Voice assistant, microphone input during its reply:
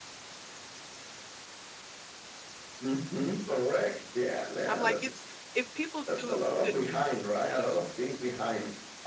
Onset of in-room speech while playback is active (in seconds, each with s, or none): 4.7 s